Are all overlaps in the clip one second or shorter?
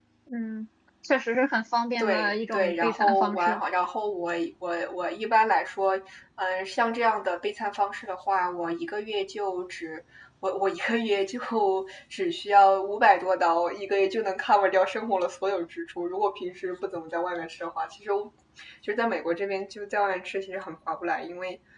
No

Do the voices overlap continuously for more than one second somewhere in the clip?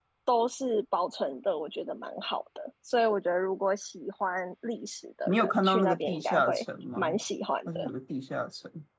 Yes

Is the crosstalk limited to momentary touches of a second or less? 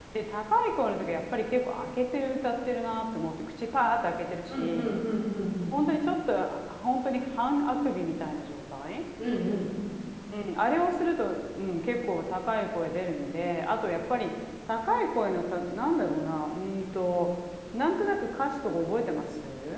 Yes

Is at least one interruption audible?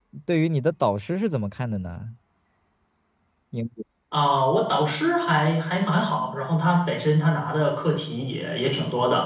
No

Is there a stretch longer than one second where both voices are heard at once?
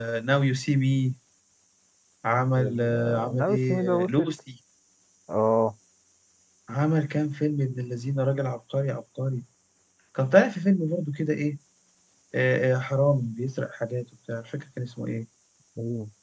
Yes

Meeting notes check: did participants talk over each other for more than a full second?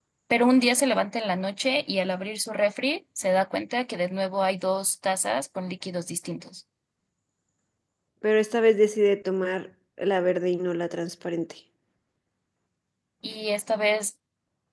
No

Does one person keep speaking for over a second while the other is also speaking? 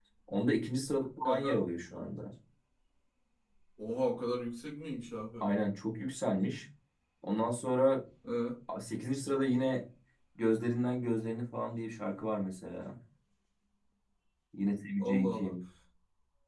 No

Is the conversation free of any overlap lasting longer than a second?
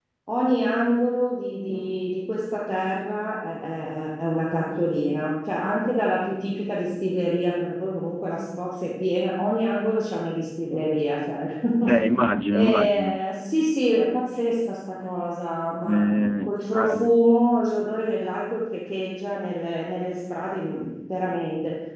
No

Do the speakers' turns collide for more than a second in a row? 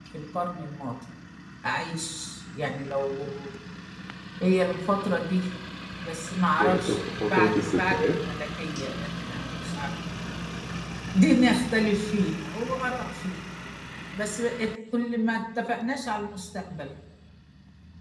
Yes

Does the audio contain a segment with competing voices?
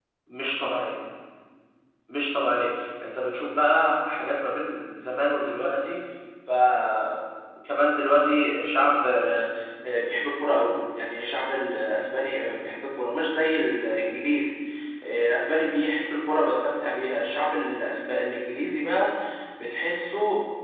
No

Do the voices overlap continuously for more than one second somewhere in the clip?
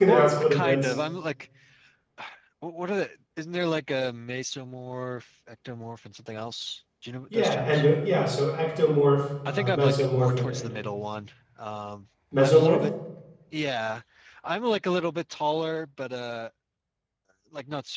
Yes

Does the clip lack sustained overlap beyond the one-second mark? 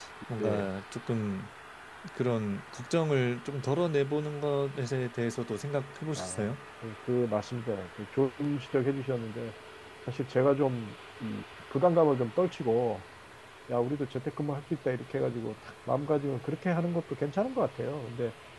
Yes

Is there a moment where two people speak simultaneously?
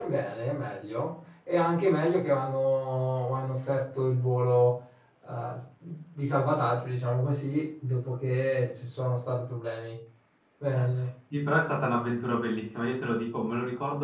No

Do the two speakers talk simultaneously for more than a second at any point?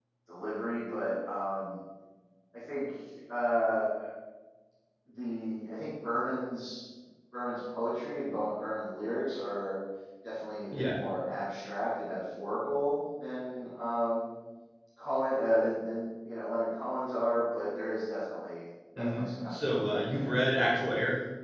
Yes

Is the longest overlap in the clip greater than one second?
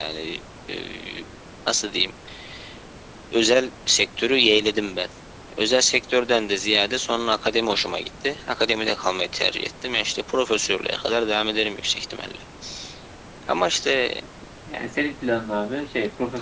No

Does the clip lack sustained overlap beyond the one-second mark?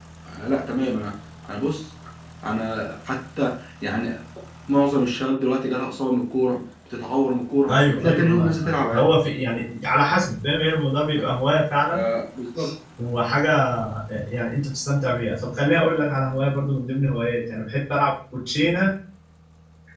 No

